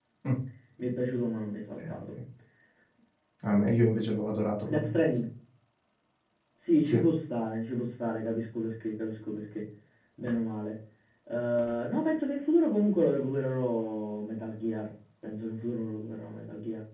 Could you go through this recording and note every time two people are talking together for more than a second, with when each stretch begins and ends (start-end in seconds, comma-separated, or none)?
none